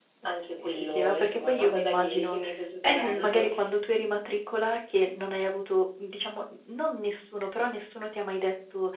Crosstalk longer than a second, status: present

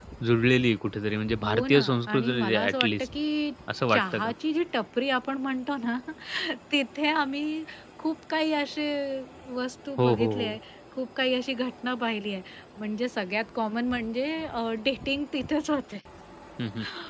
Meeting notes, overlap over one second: present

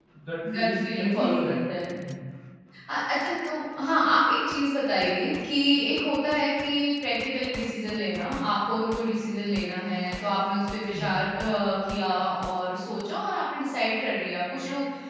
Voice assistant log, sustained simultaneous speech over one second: present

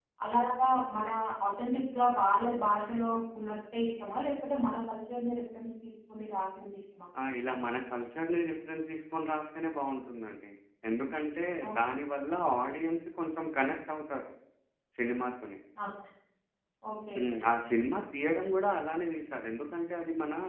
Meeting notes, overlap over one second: none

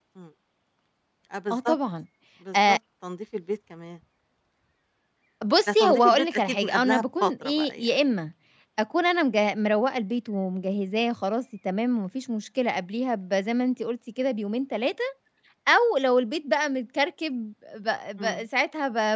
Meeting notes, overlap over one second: present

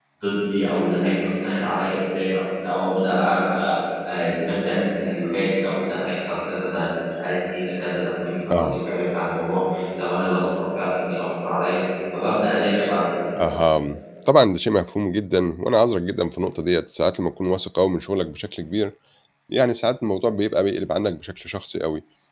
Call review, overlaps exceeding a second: none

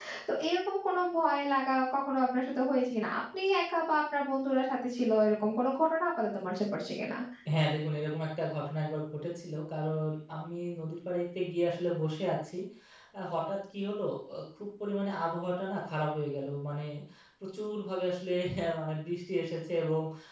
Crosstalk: none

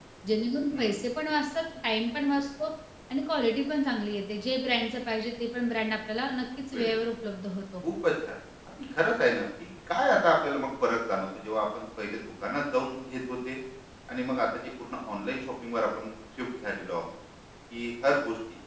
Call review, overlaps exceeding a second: none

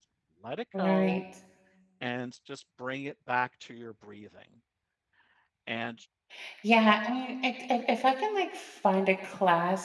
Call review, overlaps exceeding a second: none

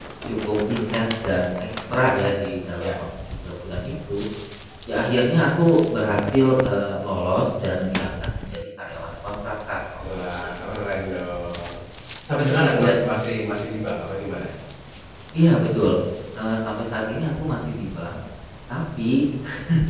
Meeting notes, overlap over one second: none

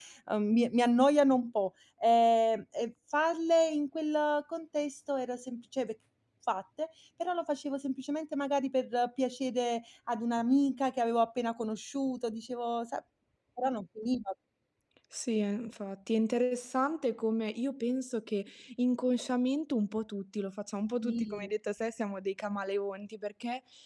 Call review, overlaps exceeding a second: none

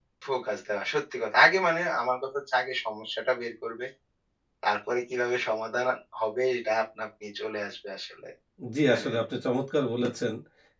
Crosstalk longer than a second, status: none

